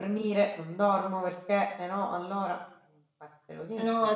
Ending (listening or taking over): taking over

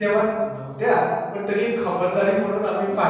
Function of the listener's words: listening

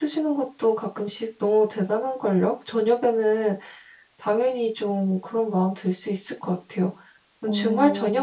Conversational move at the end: listening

